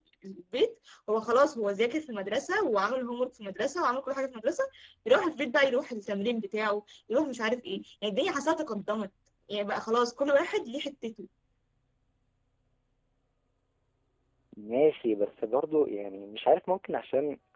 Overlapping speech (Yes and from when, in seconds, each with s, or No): No